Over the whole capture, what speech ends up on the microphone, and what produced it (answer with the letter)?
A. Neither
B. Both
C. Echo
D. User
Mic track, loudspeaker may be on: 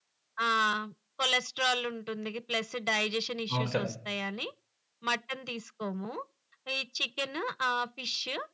B